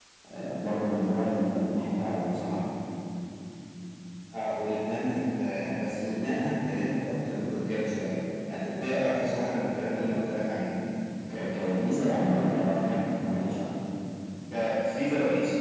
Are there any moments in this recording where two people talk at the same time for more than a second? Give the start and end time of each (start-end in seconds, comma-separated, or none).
none